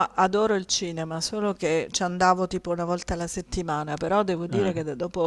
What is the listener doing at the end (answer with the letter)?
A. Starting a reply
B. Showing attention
B